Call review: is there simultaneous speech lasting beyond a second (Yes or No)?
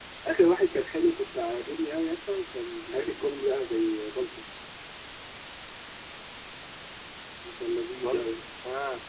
No